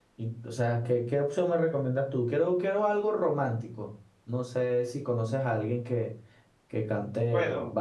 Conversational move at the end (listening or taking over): taking over